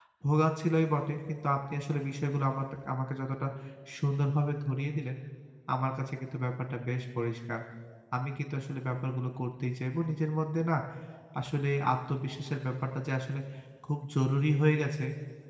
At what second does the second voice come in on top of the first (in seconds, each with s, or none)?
none